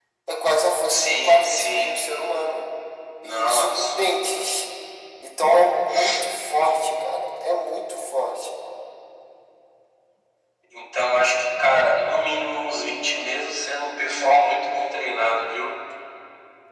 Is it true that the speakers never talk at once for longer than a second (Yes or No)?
No